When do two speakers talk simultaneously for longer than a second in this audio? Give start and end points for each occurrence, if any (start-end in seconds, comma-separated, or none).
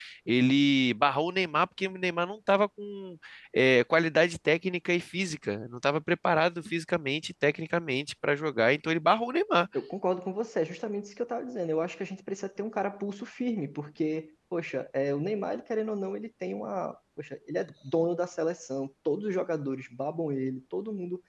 none